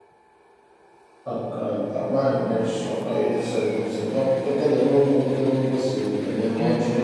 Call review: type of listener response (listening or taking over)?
taking over